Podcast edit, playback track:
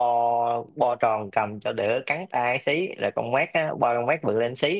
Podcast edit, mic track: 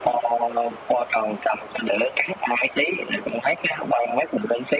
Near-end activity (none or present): none